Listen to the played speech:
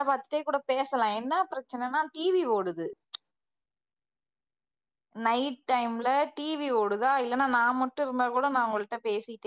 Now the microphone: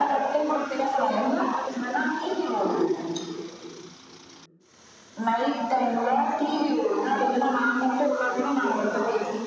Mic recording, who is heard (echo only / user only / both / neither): both